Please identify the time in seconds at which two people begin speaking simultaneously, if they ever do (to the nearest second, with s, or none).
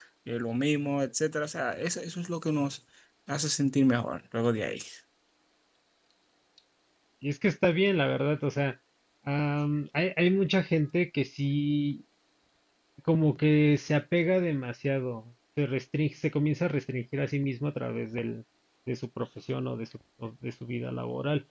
none